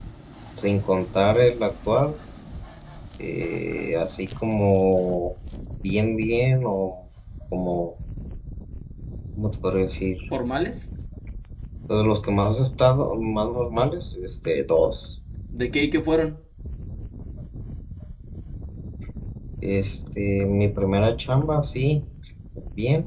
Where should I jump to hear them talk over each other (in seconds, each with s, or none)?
none